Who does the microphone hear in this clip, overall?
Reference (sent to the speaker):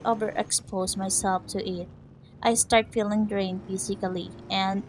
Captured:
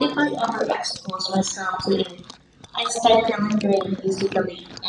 echo only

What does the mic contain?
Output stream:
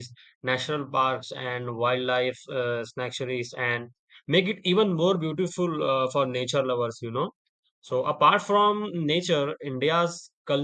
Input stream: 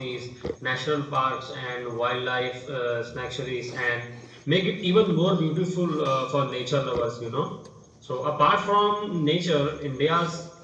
echo only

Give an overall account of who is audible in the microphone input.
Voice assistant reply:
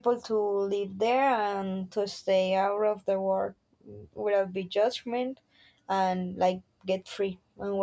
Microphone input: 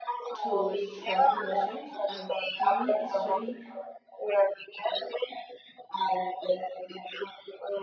both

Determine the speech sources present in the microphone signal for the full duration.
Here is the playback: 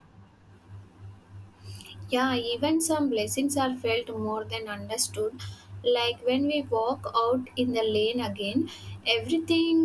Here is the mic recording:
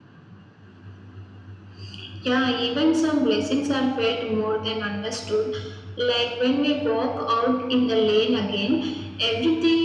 echo only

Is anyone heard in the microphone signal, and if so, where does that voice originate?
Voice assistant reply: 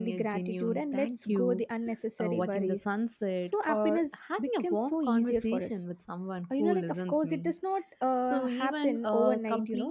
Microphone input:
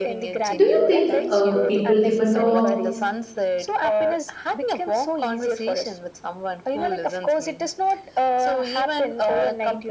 both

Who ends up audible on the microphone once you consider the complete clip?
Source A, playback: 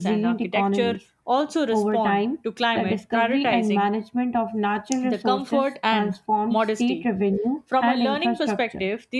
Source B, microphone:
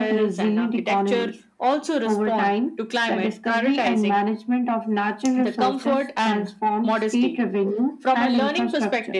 echo only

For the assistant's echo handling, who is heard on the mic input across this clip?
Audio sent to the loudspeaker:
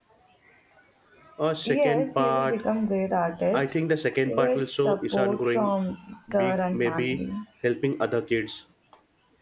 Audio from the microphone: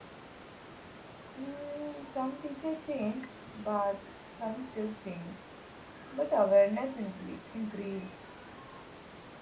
user only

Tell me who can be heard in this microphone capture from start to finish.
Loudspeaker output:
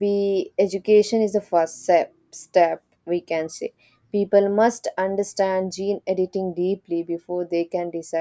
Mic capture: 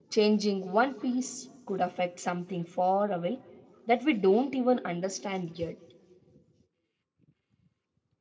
user only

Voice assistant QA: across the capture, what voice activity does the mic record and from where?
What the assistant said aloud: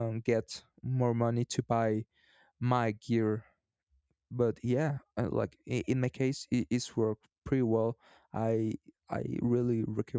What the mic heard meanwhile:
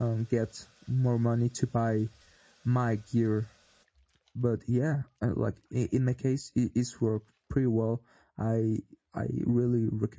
echo only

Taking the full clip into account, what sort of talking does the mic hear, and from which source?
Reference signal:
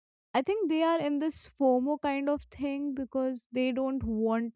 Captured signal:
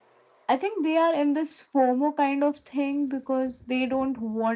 echo only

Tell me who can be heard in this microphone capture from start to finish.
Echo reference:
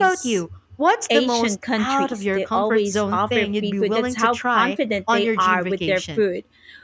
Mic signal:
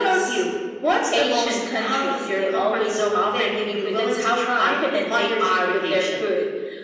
echo only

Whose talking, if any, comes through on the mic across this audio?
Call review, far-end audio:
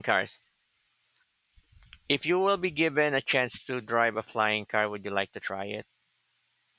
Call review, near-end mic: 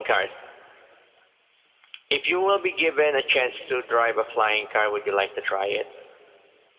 echo only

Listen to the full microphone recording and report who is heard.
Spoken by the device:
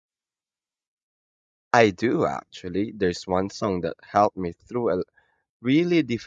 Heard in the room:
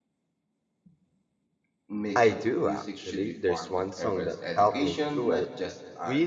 both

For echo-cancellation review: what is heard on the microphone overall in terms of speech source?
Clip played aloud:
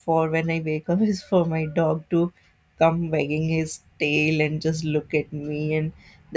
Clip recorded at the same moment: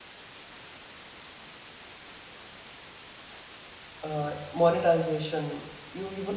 user only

